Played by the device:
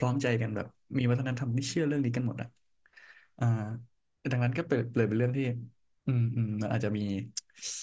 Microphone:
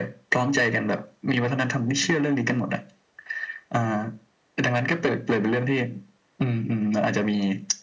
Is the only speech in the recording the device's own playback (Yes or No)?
Yes